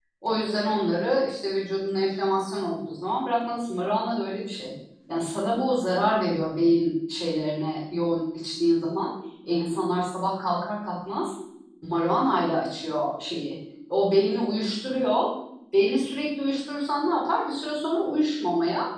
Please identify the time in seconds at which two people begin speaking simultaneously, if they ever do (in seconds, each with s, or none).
none